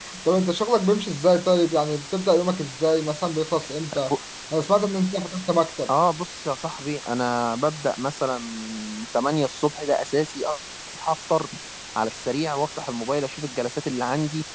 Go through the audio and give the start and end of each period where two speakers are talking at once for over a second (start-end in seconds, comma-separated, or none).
none